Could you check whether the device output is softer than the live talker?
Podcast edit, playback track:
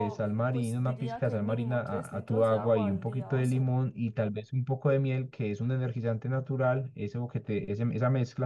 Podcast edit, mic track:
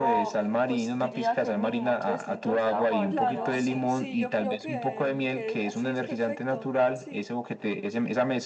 No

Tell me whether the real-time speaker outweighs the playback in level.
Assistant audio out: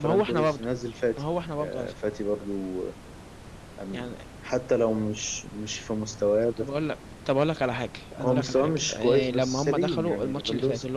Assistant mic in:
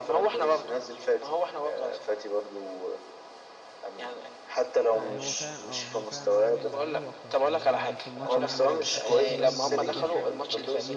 No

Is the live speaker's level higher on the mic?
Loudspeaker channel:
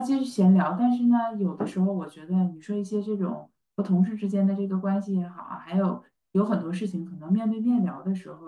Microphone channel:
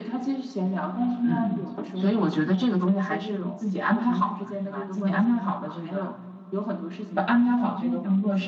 Yes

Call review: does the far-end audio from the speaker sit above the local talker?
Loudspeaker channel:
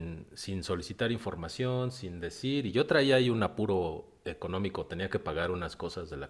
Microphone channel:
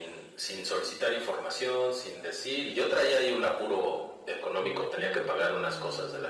Yes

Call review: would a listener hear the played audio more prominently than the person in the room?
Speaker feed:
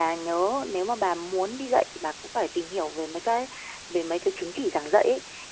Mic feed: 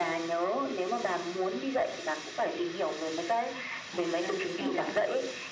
Yes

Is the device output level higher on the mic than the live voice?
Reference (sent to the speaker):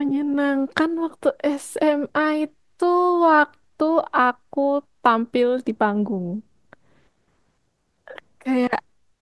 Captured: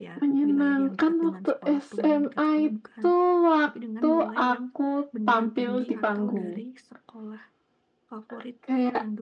Yes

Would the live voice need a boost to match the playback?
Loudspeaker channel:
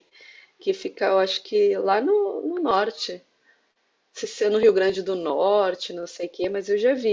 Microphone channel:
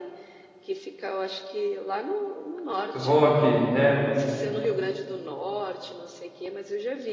No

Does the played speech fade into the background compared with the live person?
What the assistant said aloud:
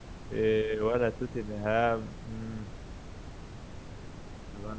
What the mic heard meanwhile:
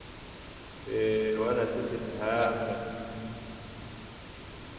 No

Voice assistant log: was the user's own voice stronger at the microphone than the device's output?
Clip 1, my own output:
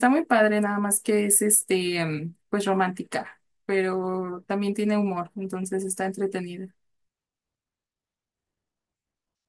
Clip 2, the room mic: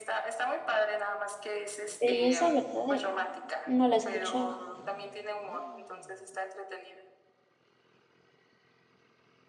Yes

